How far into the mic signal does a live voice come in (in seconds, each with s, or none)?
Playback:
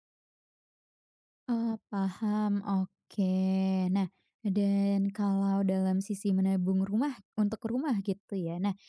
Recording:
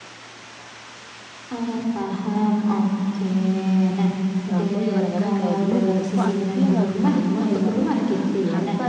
4.5 s